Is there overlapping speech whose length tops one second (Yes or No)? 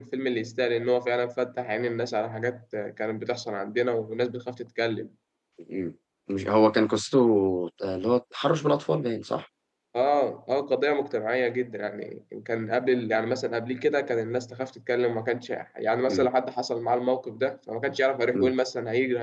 No